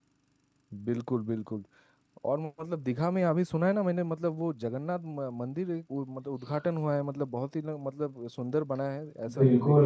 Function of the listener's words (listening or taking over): taking over